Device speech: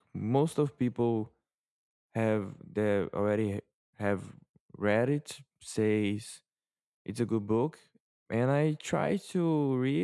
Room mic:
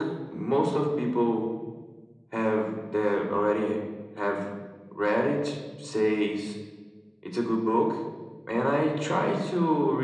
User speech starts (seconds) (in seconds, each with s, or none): none